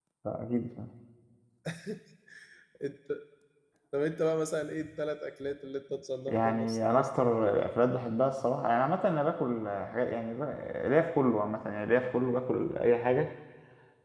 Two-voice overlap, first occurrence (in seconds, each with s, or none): 6.3 s